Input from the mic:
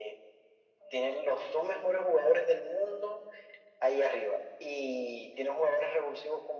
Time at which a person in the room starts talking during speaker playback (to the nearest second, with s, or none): none